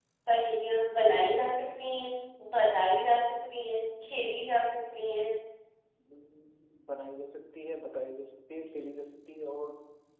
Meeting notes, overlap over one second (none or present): none